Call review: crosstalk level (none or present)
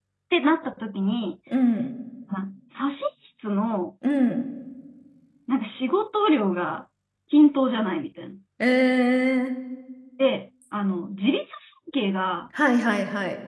none